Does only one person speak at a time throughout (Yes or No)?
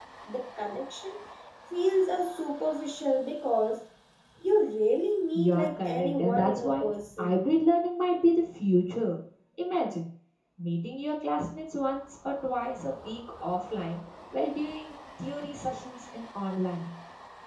No